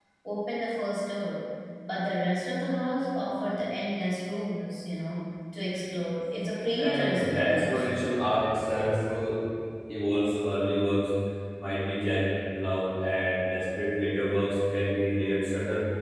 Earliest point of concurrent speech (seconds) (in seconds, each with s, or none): 6.8 s